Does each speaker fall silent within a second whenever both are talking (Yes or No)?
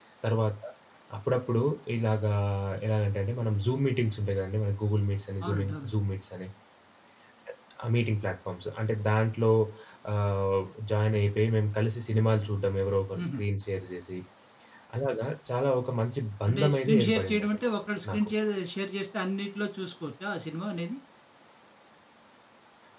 No